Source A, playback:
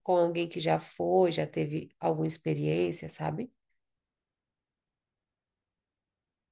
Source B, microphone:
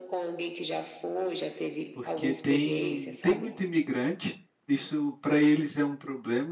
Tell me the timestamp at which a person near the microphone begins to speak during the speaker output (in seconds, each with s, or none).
1.9 s